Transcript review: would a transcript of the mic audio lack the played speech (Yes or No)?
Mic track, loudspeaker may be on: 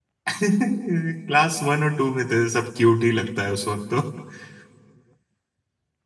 Yes